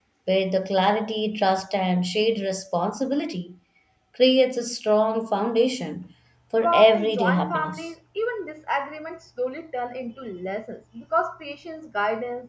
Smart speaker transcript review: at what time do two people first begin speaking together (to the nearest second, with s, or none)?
7 s